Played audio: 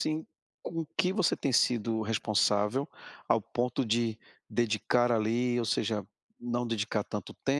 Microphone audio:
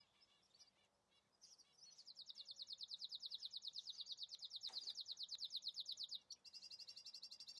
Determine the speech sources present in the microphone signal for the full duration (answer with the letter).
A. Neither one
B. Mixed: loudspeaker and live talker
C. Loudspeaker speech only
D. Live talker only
A